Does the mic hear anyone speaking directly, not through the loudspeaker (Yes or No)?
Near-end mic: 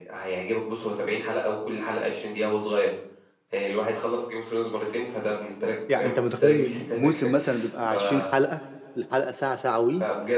Yes